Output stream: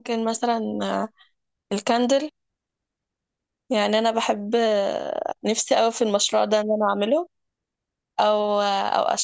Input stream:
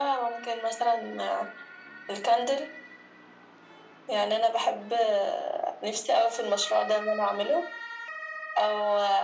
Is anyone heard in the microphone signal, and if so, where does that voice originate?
echo only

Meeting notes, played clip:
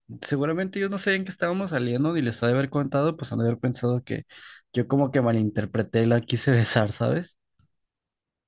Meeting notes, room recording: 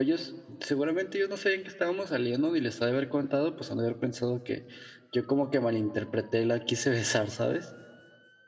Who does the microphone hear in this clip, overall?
echo only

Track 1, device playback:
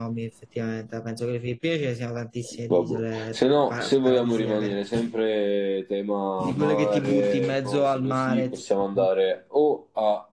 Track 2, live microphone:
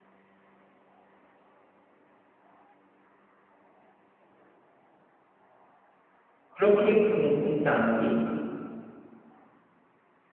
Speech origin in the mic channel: user only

